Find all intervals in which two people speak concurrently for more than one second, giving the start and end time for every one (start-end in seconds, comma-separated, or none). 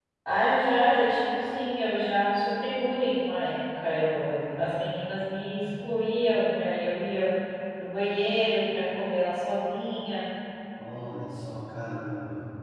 none